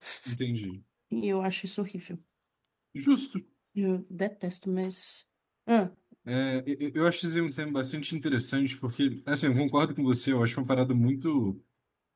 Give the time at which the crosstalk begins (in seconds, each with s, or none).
none